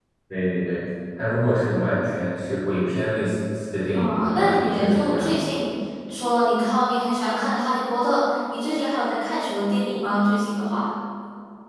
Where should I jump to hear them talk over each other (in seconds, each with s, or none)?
3.9 s